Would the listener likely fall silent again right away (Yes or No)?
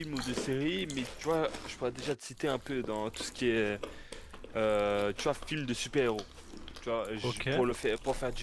Yes